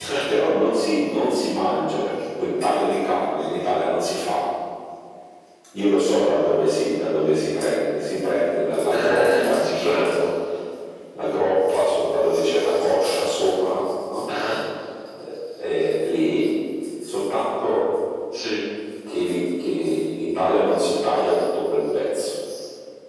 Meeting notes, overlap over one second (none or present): present